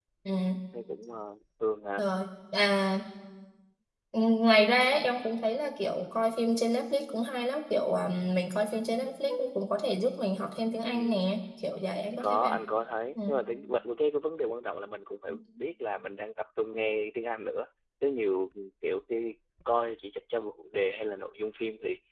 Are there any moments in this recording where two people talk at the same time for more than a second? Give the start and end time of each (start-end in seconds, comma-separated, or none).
none